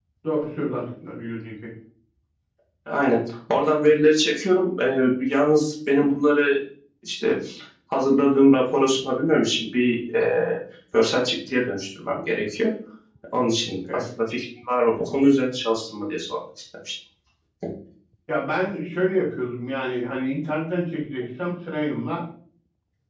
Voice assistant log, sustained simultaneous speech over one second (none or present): none